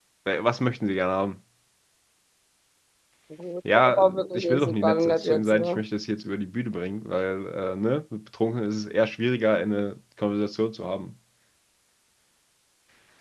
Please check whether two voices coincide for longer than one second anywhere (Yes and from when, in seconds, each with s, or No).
Yes, from 3.7 s